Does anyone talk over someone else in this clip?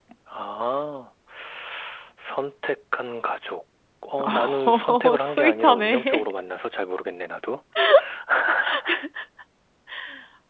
Yes, from 4.2 s

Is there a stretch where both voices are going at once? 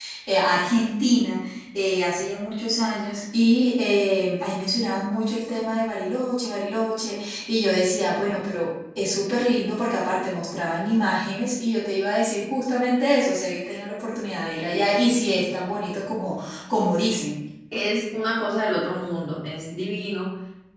No

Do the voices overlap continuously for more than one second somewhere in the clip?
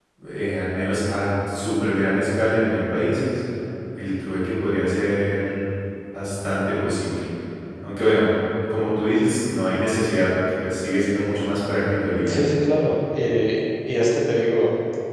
No

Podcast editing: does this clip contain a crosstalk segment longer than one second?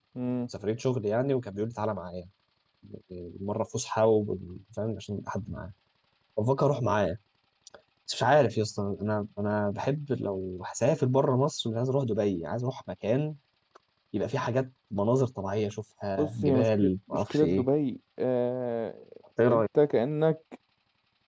Yes, from 16.2 s

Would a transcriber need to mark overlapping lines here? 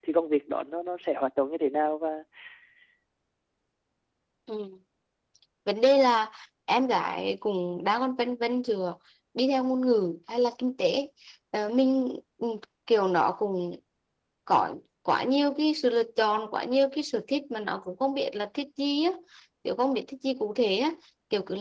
No

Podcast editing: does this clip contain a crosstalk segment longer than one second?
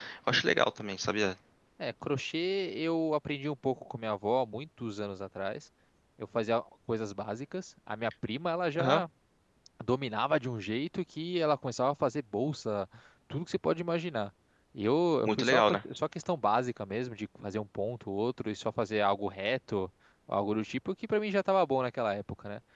No

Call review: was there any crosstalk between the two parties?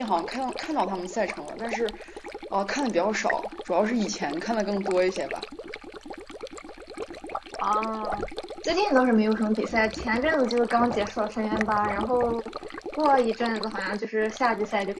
No

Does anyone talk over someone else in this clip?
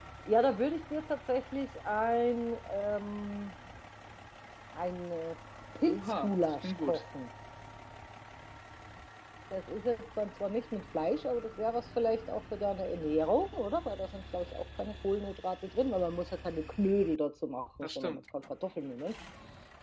Yes, from 5.8 s

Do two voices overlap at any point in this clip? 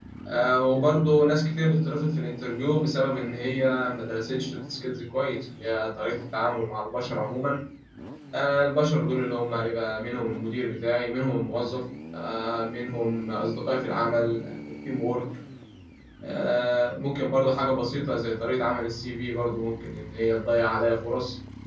No

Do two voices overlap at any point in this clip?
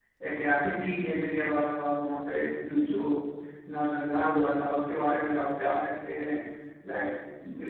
No

